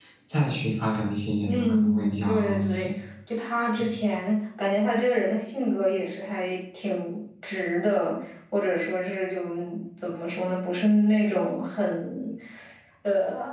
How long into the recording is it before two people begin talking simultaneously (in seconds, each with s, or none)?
1.4 s